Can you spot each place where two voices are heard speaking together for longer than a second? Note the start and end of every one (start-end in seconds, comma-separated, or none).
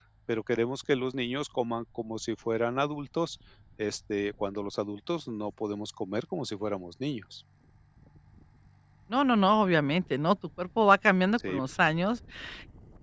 none